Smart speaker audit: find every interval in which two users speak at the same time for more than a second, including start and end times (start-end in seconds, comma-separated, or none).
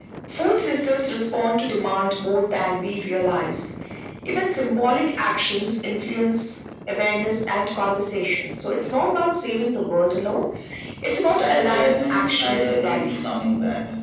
11.3-13.3